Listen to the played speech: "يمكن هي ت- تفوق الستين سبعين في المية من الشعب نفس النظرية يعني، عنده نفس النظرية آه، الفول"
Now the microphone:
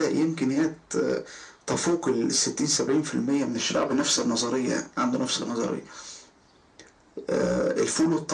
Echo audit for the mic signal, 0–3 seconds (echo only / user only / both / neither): echo only